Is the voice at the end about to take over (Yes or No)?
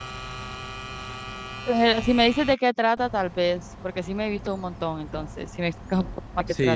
Yes